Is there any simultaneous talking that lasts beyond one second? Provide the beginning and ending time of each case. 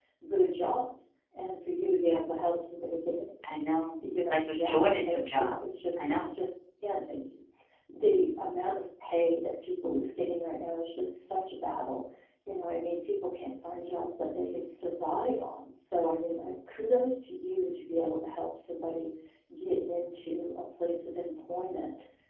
4.0-6.3

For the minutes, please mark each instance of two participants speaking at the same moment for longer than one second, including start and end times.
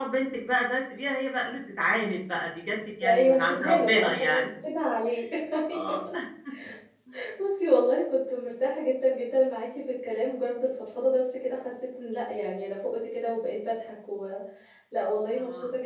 3.0-4.5

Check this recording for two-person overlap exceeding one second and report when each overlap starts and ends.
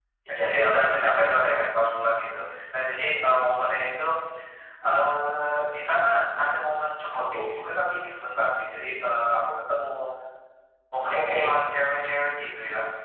none

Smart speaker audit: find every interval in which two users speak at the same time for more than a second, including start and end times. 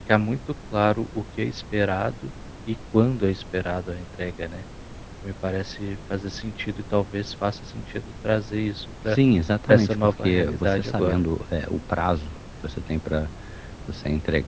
9.7-11.2

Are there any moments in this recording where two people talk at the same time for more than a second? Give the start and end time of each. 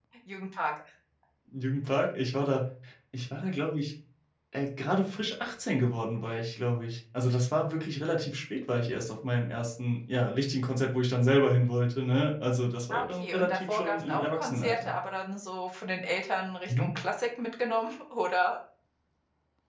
12.9-14.9

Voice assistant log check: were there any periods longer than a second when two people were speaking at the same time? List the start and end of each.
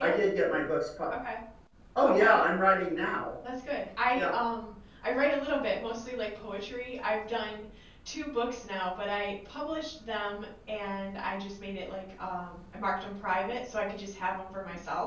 none

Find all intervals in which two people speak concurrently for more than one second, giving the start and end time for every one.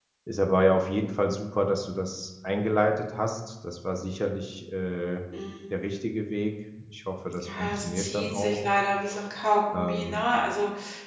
7.5-8.8

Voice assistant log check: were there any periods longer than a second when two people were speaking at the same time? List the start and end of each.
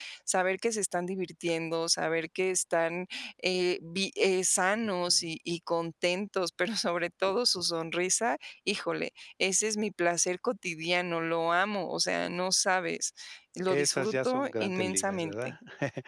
13.7-15.5

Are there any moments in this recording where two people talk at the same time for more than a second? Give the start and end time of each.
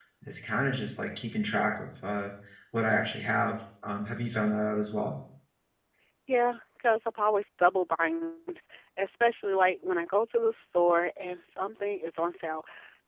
none

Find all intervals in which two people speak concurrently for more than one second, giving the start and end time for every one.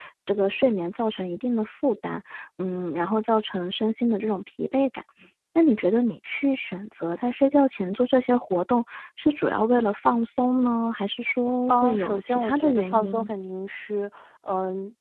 11.7-13.3

